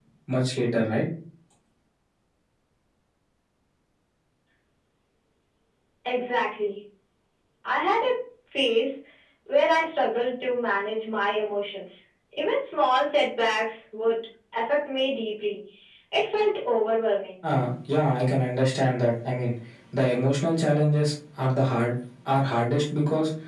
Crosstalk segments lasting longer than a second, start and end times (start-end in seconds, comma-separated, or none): none